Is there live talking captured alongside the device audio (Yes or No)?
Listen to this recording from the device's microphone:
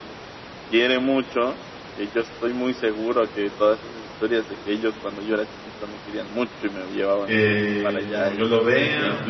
Yes